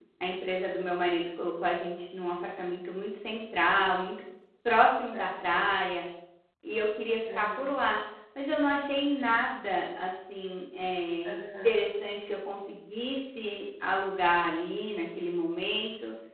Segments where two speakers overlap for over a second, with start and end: none

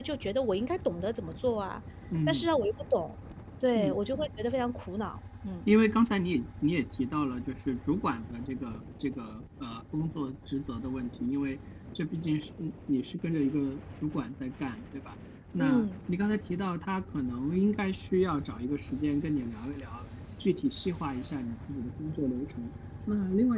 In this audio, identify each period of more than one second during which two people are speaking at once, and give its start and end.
none

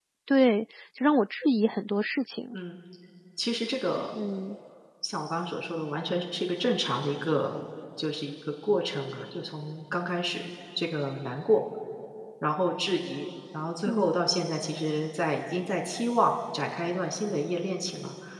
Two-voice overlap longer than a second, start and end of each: none

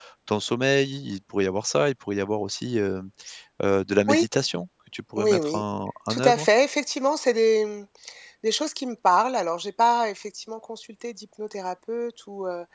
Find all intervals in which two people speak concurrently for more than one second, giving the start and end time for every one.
none

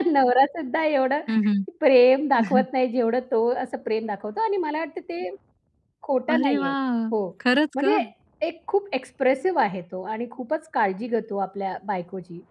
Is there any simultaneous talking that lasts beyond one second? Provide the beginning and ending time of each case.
none

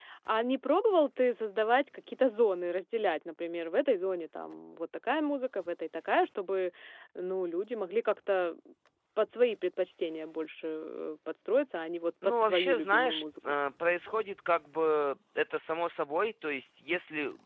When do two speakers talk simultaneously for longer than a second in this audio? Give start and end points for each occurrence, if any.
12.2-13.5

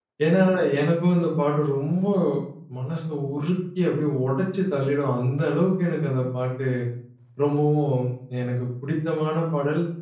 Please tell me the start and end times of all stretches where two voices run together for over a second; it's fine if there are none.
none

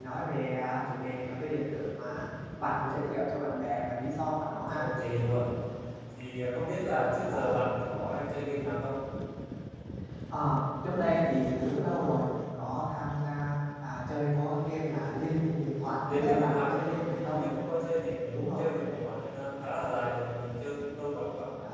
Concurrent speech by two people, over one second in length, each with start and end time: 16.1-17.4

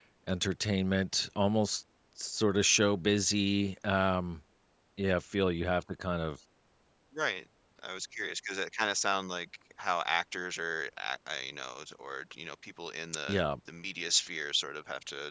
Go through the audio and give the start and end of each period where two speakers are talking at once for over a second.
none

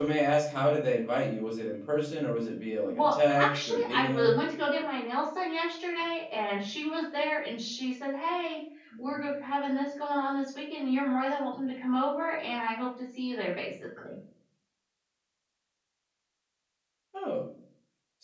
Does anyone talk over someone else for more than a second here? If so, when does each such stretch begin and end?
2.9-4.4

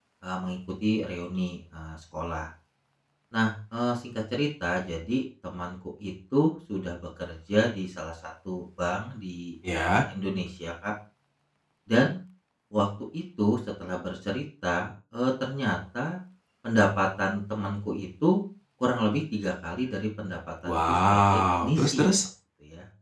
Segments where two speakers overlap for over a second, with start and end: 20.7-22.0

